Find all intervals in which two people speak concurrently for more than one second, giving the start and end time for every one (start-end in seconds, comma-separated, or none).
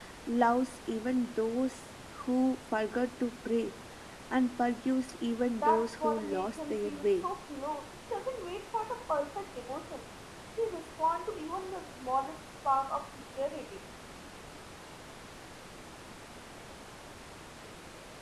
5.6-7.3